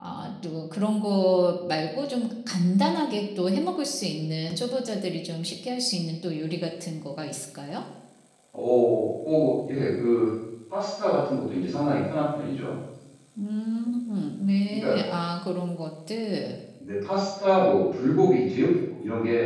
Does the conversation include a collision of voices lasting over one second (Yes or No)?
No